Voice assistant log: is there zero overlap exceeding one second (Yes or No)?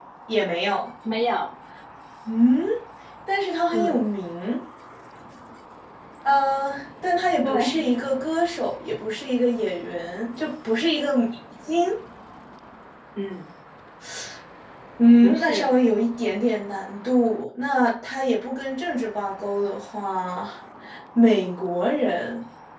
Yes